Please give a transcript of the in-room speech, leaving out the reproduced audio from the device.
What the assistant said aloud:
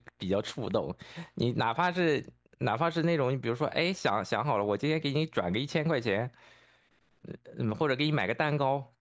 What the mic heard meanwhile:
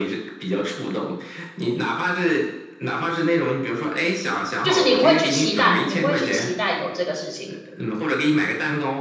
就是你不会去期待，你不会去期待有这个事情，

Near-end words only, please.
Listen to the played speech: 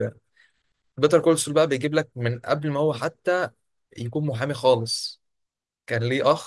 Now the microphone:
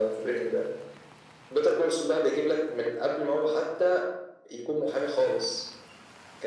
none

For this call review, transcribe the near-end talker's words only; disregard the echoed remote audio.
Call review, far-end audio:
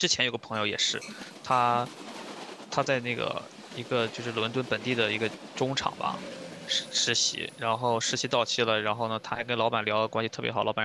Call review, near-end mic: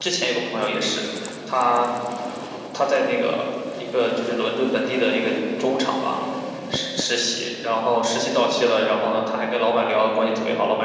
none

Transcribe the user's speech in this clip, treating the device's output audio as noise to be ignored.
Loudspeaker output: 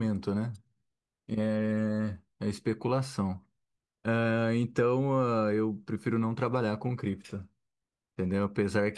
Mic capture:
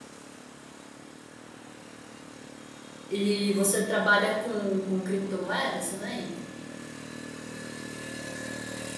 E você trabalha com, com criptomoedas também?

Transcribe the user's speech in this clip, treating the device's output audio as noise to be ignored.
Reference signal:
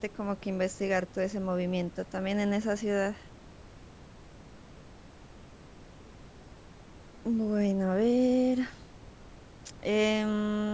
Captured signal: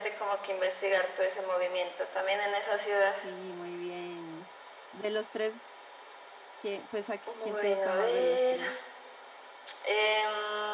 Sí, muy bien. De los tres, ¿qué- pues a qui- quién te gusta más de los tres?

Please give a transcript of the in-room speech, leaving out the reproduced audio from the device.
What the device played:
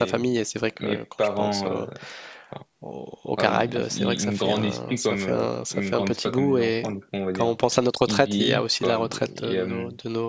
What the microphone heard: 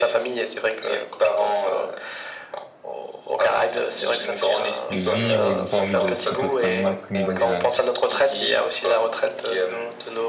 de vivre, ils n'ont pas envie de potentiellement être mis dans un,

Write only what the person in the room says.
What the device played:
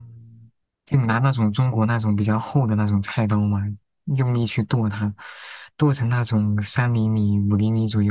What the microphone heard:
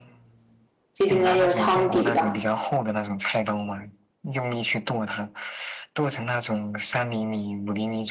这应该就是汤底吧。

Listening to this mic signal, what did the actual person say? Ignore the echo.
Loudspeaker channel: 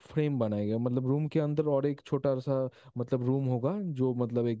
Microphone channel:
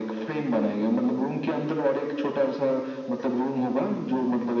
none

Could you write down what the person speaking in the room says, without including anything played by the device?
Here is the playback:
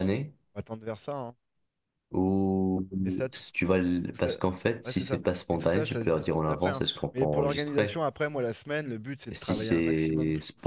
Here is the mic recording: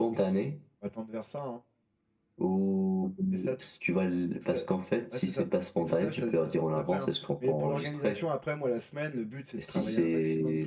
none

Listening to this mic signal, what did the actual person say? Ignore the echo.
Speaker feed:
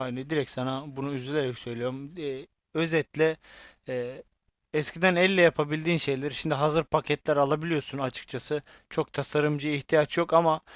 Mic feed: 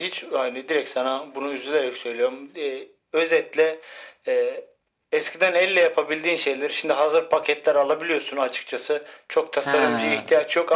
He,

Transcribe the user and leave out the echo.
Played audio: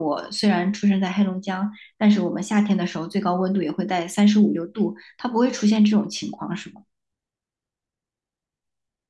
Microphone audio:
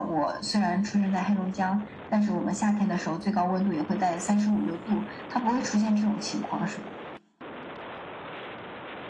none

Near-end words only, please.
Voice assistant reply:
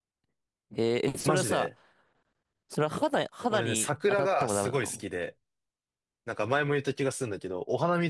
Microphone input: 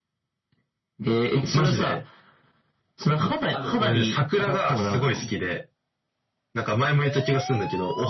ある。

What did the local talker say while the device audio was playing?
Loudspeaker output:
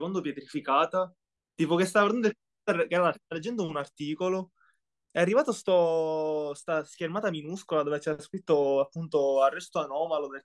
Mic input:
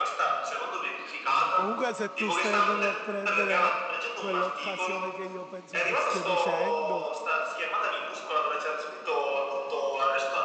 Comunque, se tu stai andando a prendere quell'occasione che io penso tu stia dicendo...

